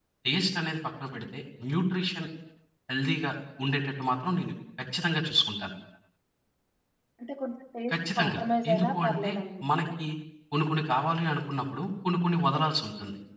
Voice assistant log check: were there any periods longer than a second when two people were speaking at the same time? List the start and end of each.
7.9-9.3

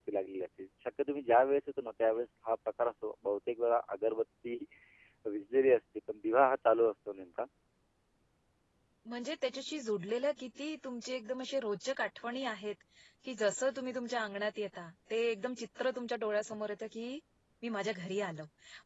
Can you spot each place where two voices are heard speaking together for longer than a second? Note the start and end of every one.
none

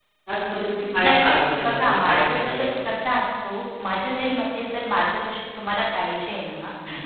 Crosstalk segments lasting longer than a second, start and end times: 1.0-2.6

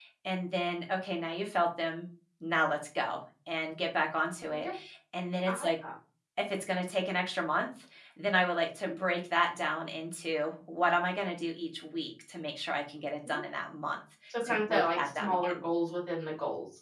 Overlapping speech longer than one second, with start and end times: 14.4-15.6

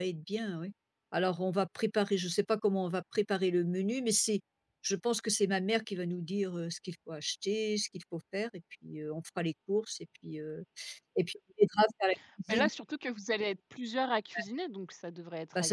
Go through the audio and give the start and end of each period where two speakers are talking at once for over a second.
none

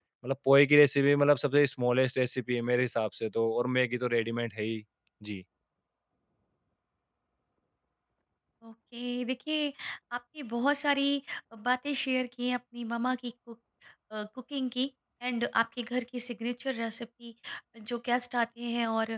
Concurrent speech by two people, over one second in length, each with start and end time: none

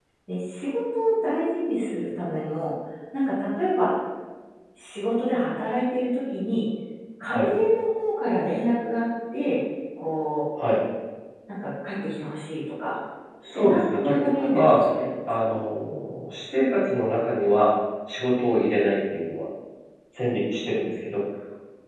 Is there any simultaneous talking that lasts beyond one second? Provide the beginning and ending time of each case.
13.5-14.8

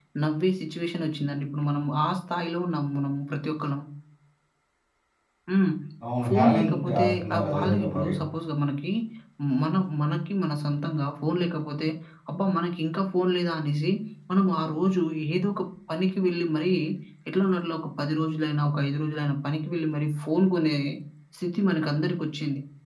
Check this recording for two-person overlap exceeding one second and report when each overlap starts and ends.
6.2-8.1

